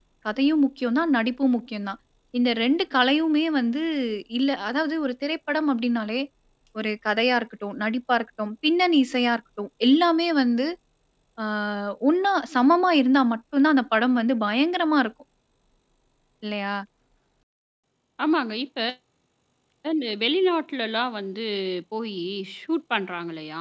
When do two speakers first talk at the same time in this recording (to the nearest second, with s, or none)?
none